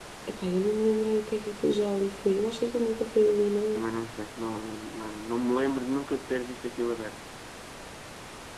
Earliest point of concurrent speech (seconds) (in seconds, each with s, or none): none